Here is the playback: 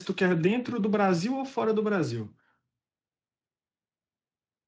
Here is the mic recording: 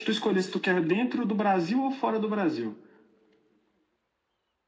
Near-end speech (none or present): none